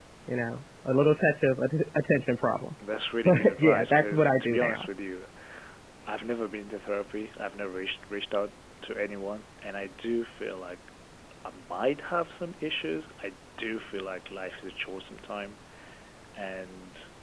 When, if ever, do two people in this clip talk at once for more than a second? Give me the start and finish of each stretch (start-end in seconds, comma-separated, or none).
3.2-4.9